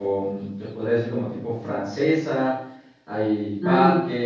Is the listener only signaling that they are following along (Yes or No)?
Yes